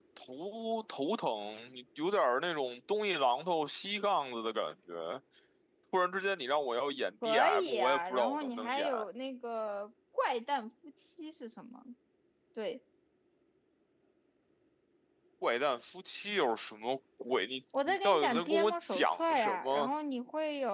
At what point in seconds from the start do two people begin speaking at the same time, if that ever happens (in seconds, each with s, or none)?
7.2 s